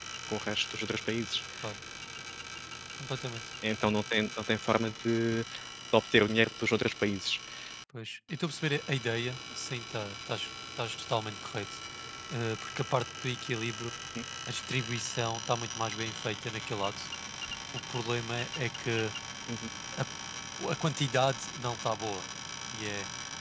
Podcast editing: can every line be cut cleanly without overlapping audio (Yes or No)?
Yes